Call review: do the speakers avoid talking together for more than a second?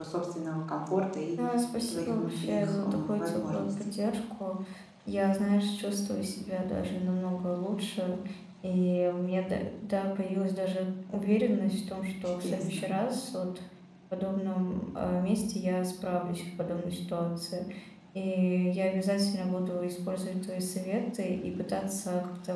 No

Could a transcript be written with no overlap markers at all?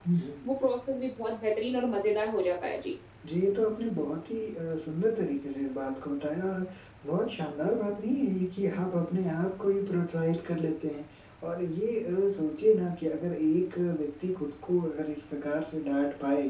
Yes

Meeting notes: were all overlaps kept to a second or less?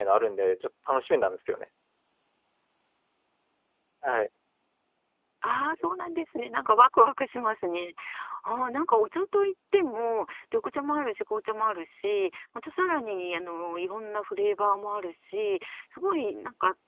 Yes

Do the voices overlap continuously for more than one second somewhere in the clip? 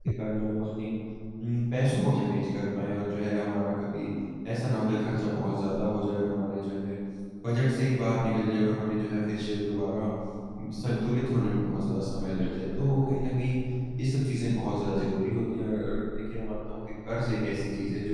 No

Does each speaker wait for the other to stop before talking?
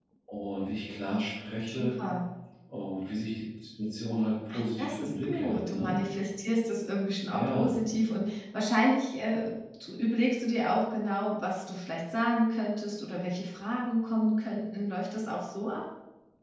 No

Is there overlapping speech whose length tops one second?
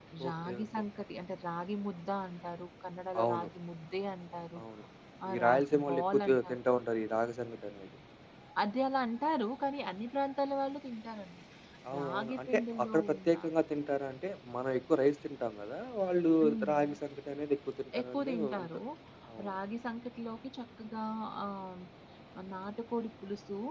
Yes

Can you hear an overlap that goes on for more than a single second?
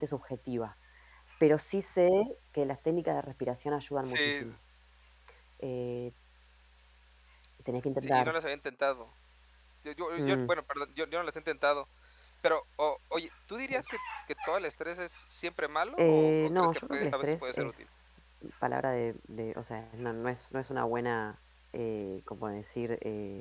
Yes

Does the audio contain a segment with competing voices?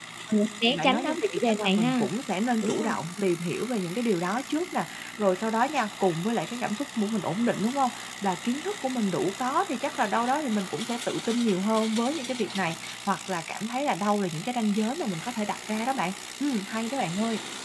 Yes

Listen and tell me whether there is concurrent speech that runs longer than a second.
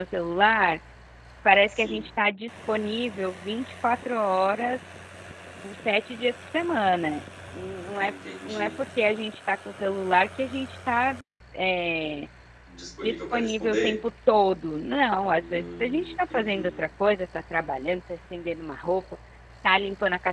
Yes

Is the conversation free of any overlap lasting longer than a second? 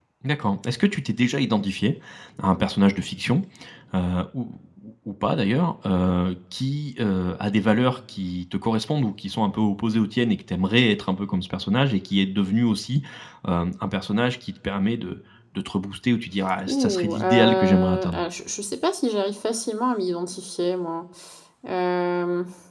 No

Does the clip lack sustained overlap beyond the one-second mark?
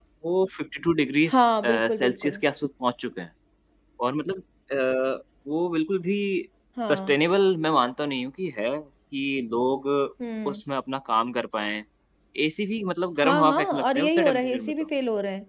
No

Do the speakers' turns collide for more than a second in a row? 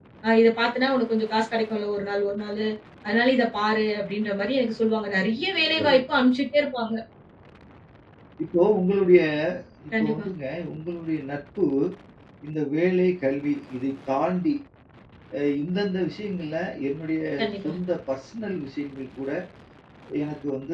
No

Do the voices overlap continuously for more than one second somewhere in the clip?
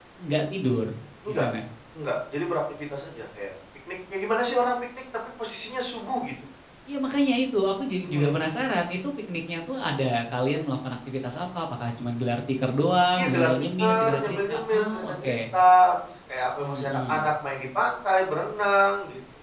Yes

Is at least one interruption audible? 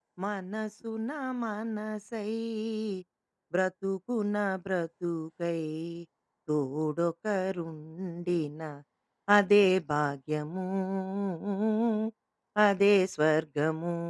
No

